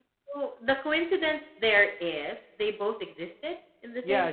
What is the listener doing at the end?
taking over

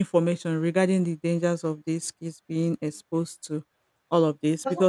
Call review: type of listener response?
listening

